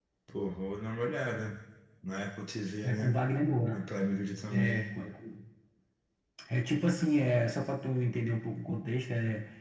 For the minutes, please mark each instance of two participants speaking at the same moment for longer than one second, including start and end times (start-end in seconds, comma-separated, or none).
none